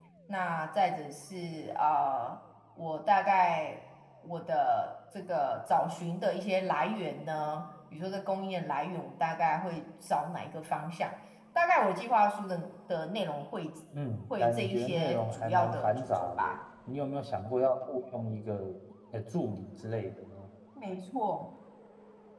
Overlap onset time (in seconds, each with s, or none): 14.4 s